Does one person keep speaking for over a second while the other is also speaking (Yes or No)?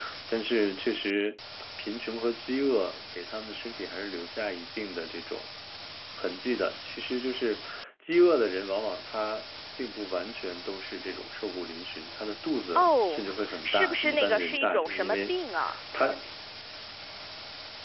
Yes